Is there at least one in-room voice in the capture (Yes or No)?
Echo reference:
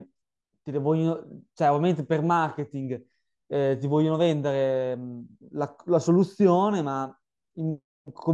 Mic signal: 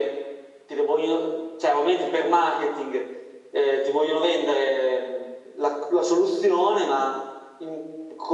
No